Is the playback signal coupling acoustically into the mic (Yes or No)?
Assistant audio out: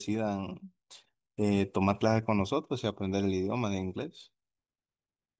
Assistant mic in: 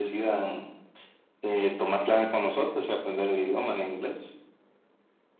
Yes